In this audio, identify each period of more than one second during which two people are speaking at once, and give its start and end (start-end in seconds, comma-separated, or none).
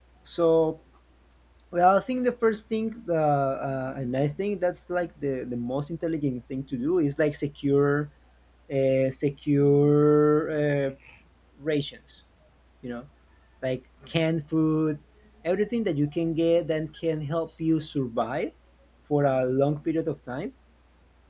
none